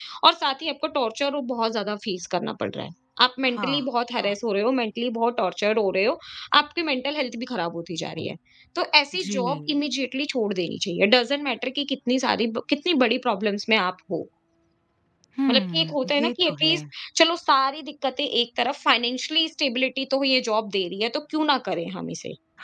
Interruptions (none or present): present